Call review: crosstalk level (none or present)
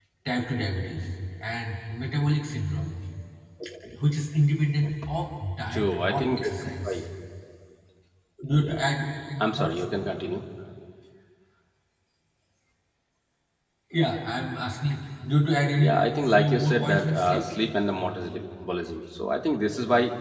present